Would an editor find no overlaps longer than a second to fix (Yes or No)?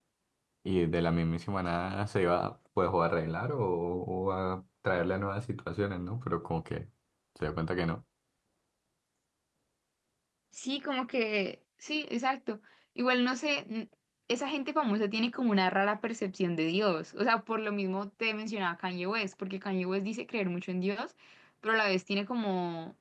Yes